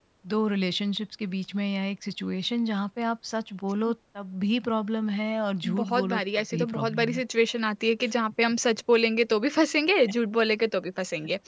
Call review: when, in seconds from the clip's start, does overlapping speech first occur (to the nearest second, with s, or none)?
6 s